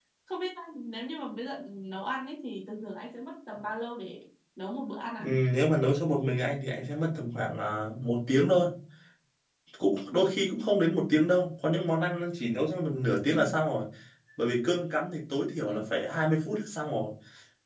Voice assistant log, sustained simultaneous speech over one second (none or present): none